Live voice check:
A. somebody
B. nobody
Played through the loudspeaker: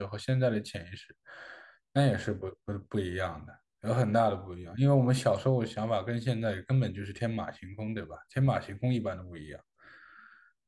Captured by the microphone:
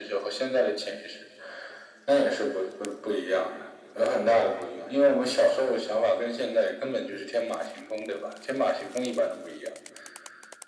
B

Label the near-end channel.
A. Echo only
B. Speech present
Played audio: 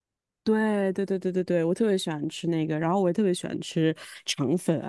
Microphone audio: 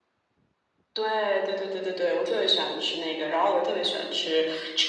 A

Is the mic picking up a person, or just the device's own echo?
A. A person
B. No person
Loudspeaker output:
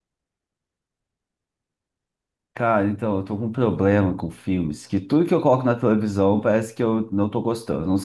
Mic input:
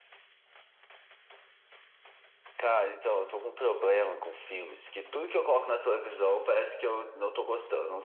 B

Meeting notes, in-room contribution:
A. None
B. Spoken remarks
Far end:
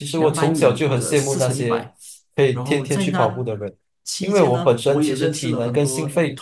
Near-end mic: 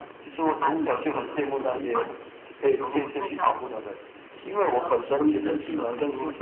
A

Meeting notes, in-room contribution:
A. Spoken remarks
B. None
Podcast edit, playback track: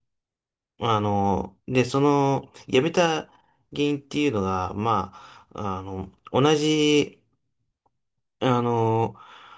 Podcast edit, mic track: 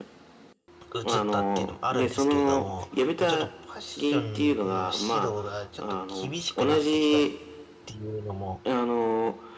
A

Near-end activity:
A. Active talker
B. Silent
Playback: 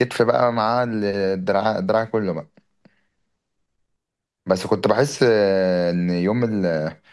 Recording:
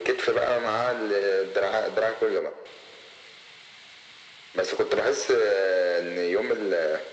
B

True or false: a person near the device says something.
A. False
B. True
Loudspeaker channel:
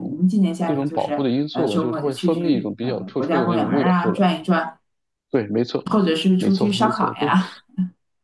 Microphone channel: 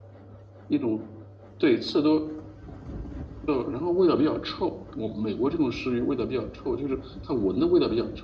B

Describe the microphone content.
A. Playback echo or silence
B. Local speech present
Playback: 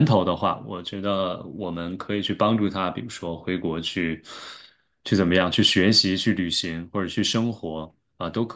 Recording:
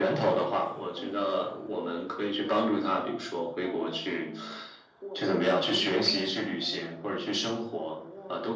B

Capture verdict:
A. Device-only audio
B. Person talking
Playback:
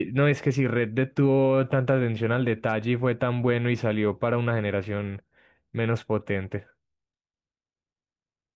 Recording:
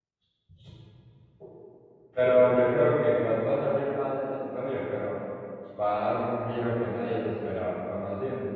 B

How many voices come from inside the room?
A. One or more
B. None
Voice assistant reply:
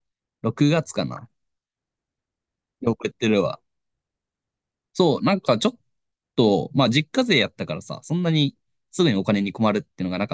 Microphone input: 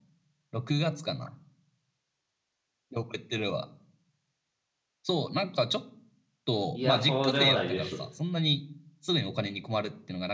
A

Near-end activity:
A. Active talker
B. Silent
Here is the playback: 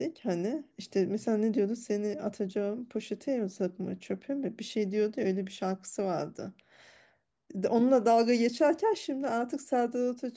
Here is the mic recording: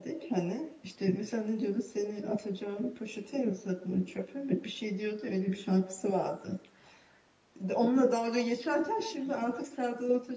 B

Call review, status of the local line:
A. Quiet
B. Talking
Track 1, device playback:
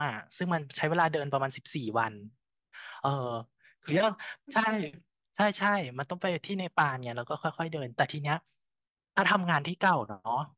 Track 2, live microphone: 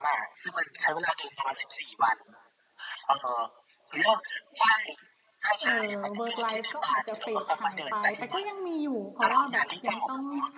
B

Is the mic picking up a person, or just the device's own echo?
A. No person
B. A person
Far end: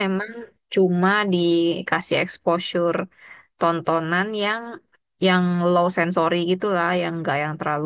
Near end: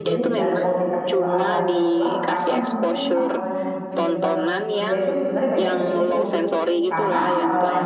B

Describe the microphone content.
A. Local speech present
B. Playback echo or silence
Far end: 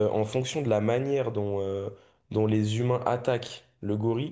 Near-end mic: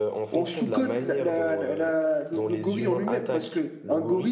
A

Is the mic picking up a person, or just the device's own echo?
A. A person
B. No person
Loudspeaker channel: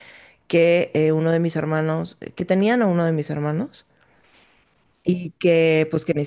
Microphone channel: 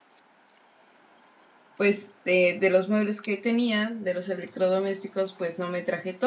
A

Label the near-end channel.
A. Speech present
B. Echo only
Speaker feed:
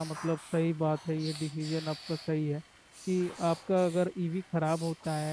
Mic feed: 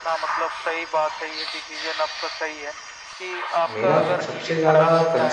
A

